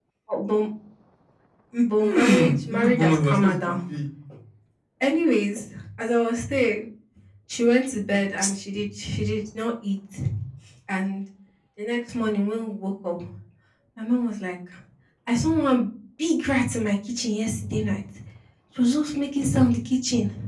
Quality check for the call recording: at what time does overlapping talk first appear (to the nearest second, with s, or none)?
2 s